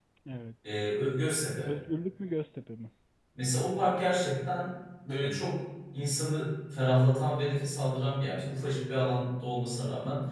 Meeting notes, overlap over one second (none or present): none